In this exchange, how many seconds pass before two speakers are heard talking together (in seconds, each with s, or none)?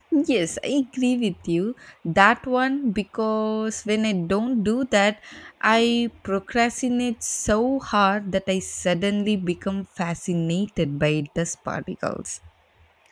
none